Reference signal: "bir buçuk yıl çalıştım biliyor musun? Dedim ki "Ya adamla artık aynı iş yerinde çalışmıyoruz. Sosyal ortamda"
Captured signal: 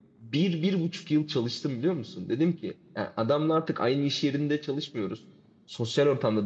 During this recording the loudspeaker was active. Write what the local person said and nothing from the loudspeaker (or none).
none